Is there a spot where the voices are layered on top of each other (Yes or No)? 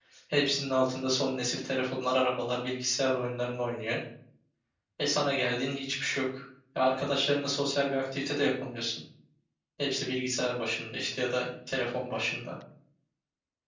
No